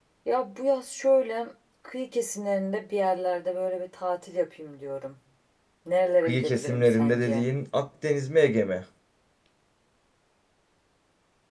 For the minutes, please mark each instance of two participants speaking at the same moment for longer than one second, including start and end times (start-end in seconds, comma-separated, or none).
6.2-7.5